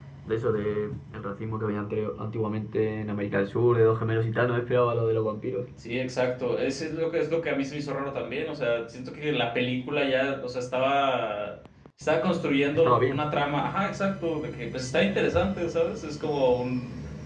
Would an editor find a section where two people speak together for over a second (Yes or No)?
No